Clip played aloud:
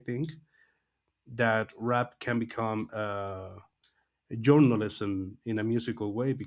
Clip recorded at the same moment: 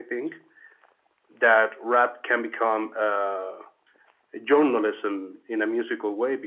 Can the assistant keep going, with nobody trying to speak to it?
Yes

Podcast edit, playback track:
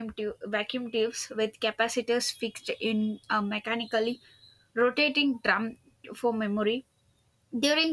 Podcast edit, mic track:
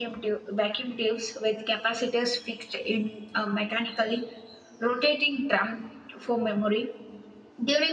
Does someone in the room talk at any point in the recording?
No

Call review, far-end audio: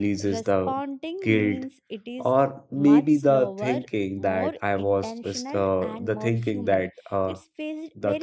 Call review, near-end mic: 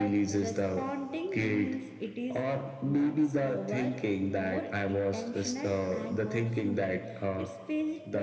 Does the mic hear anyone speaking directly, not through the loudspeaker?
No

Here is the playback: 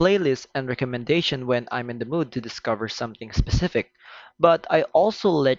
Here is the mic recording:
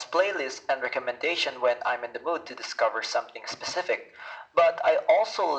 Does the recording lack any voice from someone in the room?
Yes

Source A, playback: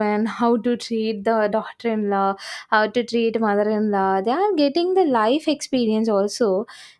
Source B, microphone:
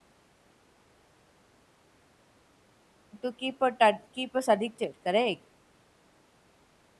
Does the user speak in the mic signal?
Yes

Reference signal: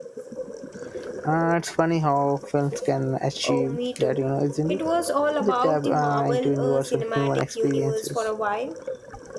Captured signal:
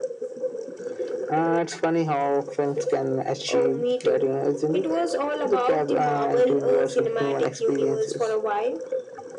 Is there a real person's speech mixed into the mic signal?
No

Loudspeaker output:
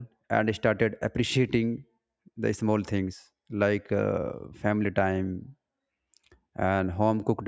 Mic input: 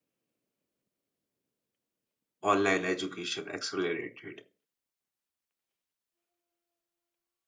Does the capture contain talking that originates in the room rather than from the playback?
Yes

